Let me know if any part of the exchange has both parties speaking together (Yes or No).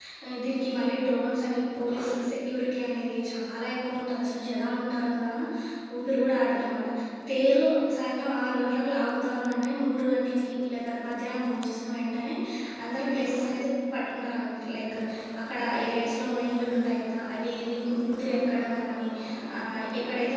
No